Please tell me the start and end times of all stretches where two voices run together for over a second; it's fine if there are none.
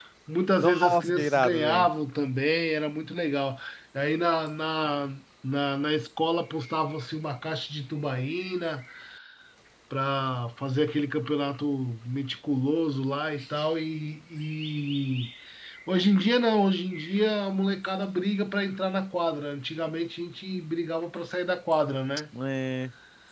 0.6-1.9

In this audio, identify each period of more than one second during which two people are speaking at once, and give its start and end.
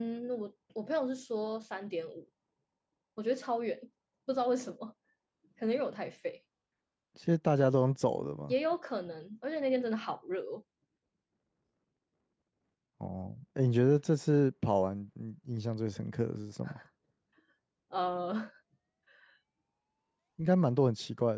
none

